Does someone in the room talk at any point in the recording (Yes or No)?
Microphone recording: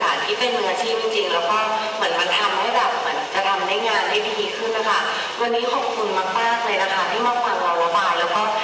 No